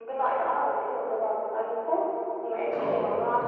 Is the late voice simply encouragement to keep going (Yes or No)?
Yes